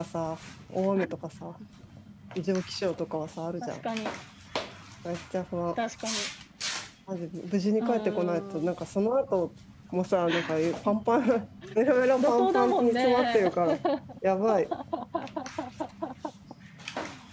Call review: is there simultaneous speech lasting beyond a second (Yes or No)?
Yes